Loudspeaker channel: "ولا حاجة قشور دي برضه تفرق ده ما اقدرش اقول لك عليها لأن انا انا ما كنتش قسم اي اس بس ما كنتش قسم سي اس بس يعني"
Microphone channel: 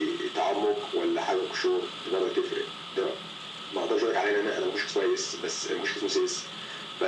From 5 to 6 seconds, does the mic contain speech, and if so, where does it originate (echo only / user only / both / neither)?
echo only